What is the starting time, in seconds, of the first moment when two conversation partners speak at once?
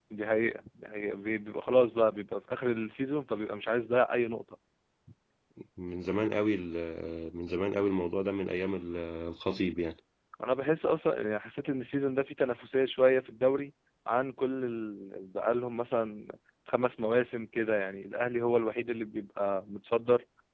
none

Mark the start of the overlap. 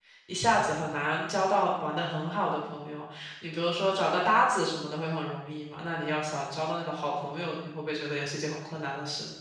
none

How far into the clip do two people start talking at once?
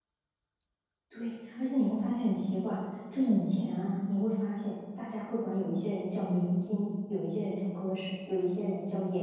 none

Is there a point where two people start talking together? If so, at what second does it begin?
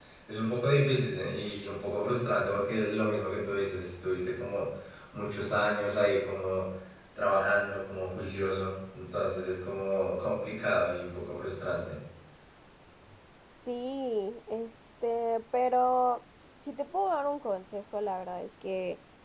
none

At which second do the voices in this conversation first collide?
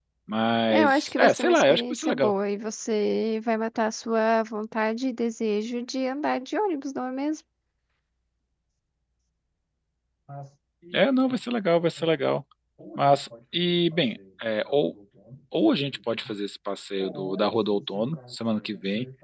0.7 s

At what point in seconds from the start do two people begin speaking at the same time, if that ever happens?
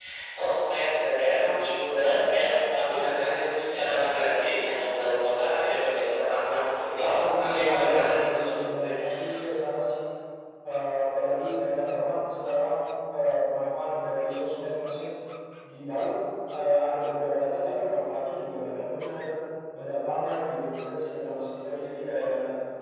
7.4 s

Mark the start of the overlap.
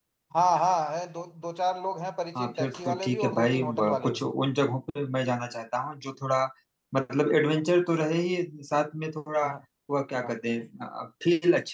2.4 s

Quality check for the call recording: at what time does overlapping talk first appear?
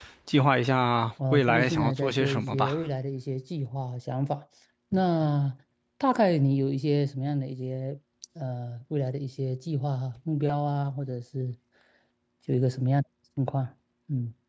1.2 s

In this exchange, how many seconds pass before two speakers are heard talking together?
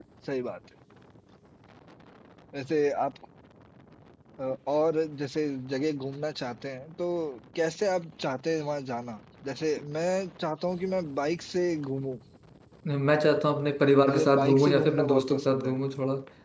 14.0 s

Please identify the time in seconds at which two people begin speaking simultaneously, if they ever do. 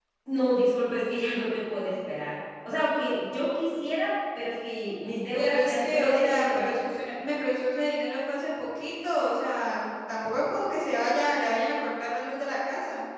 5.3 s

